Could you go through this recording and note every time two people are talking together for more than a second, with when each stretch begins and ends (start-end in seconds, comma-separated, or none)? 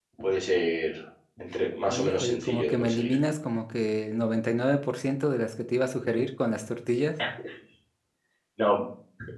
1.9-3.1